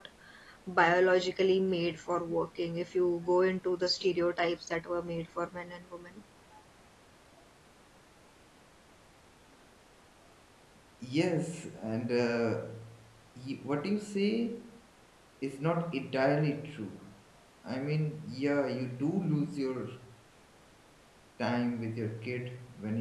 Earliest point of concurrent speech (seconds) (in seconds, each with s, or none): none